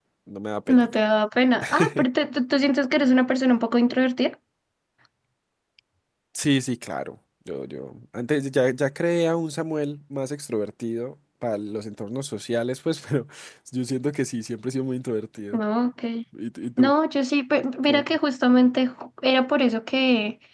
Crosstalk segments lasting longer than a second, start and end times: none

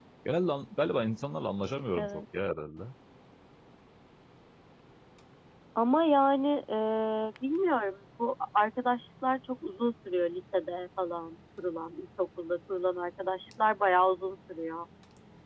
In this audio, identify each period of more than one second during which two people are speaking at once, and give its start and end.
none

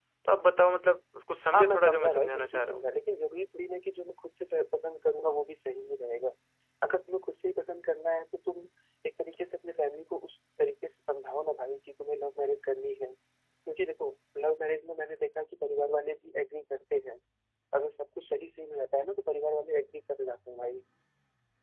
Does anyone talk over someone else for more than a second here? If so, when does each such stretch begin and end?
1.5-2.8

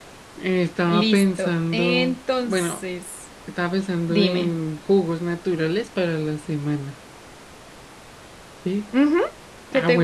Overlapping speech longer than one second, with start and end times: 0.8-2.8

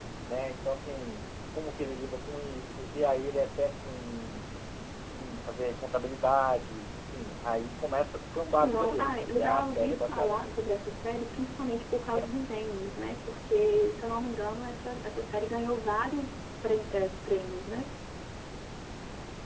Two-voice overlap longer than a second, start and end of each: 8.6-10.7

